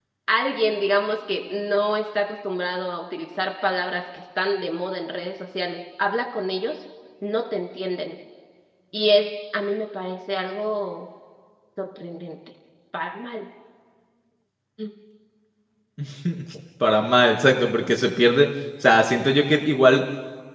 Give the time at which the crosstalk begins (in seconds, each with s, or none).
none